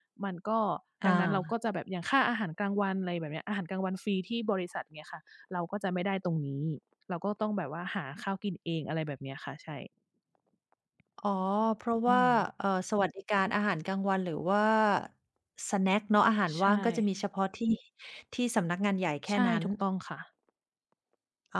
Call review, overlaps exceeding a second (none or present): none